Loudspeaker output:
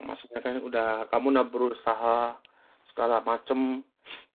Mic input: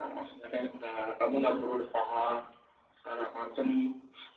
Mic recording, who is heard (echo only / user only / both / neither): echo only